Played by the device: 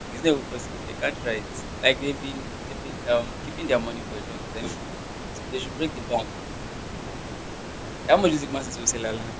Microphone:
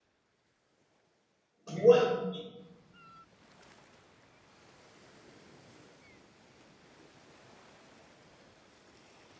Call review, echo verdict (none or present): none